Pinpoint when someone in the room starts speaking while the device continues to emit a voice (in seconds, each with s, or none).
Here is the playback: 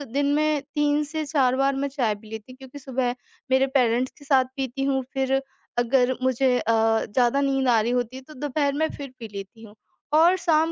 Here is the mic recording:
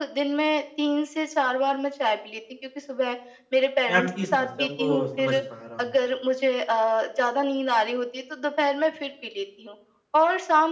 3.9 s